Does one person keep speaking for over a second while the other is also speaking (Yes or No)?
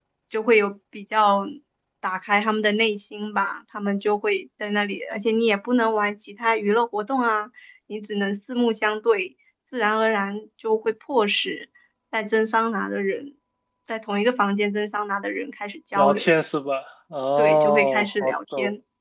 Yes